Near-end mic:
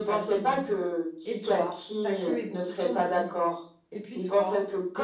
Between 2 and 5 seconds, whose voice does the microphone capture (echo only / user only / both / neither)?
both